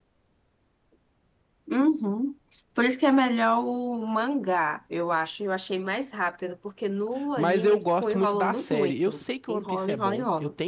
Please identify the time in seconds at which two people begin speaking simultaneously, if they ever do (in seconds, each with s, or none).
7.4 s